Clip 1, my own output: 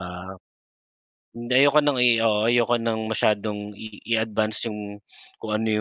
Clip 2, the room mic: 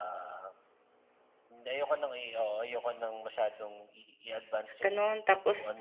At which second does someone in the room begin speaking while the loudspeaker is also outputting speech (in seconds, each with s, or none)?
4.8 s